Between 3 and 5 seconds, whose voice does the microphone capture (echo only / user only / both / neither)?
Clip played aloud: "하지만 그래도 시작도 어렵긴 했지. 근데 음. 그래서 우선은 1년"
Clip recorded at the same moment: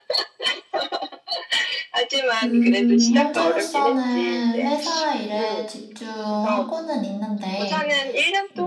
both